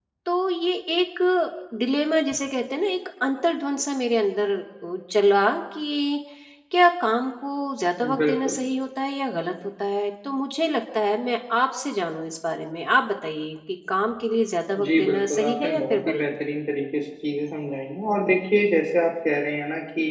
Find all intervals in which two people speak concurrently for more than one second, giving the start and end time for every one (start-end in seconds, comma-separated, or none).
14.8-16.2